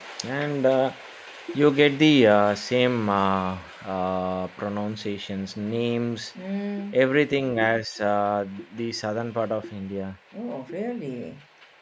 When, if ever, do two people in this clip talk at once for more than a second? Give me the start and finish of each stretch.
none

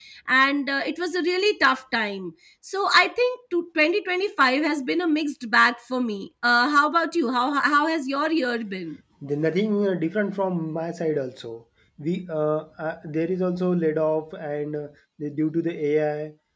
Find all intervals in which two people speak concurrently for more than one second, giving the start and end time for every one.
none

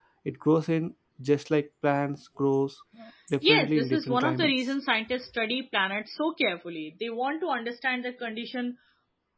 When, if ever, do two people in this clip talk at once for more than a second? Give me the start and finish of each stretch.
3.4-4.7

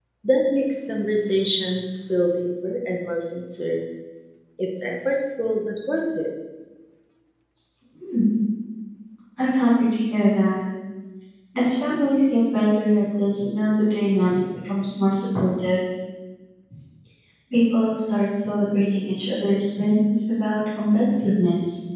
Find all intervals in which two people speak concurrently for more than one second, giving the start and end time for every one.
none

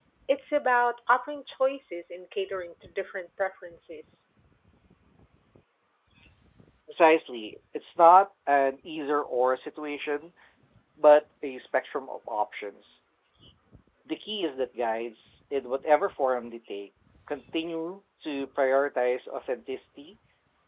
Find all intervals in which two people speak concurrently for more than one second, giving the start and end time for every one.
none

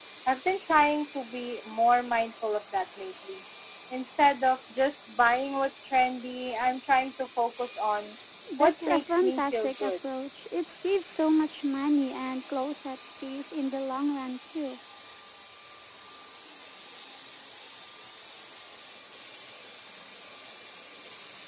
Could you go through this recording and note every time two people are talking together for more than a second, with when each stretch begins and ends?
8.6-9.9

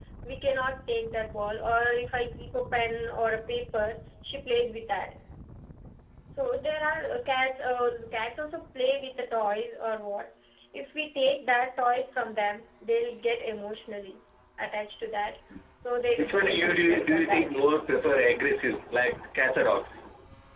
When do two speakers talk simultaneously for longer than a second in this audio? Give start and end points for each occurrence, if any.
16.2-17.5

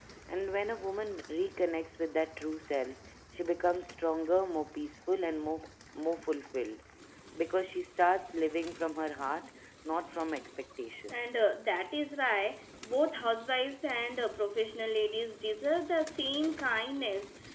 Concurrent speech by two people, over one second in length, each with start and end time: none

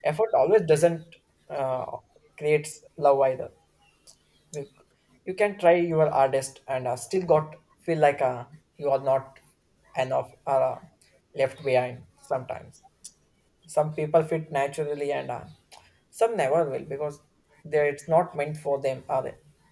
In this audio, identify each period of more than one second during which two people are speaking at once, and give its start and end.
none

